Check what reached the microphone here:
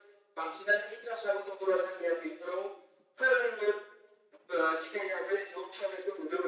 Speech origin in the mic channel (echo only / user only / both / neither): echo only